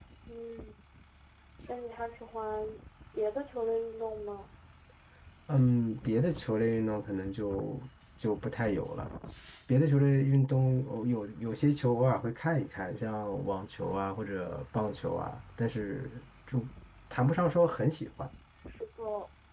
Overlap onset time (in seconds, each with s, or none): none